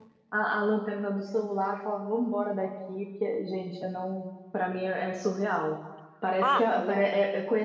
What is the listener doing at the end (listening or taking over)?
listening